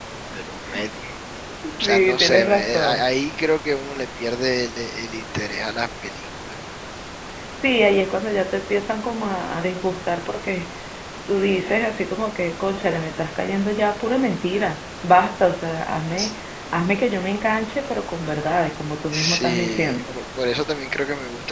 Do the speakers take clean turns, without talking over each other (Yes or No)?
No